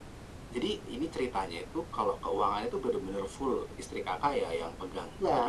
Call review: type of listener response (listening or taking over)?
taking over